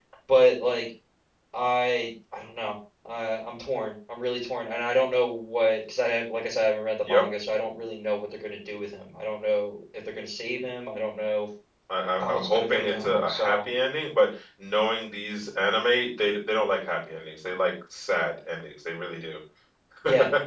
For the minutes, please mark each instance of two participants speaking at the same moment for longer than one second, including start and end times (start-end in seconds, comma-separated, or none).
12.2-13.6